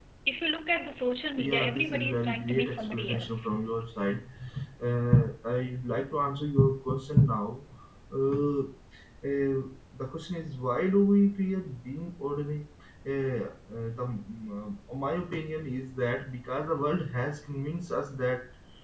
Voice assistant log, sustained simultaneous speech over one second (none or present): present